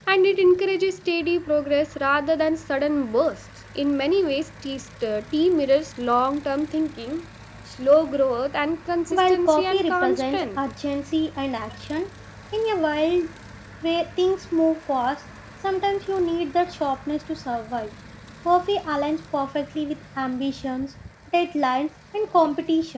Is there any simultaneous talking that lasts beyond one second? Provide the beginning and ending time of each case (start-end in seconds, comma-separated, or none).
9.1-10.5